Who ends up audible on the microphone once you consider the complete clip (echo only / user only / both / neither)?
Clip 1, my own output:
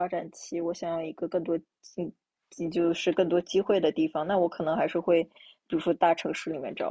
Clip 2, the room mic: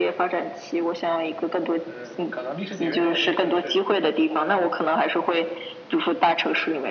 both